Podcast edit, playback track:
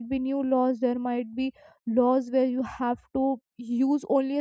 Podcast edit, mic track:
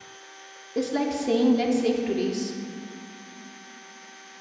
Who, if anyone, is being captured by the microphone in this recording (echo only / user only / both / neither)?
user only